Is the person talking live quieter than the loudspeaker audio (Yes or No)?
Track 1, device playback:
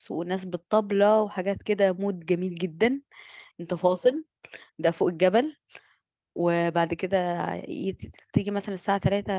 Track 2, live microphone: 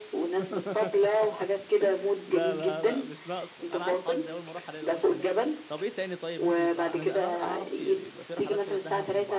Yes